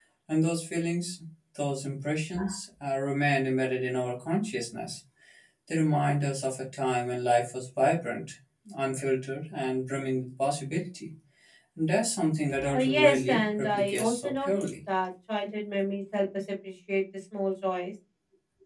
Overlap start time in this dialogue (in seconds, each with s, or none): 12.6 s